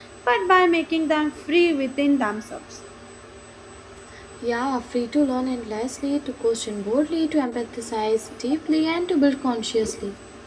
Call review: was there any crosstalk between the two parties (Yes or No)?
No